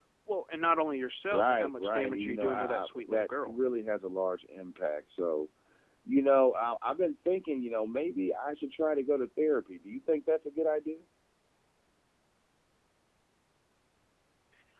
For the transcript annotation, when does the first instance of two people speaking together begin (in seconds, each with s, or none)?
1.3 s